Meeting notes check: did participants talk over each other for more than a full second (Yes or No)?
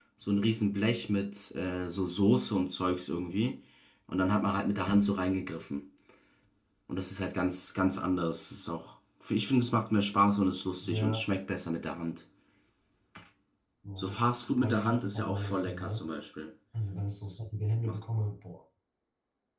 Yes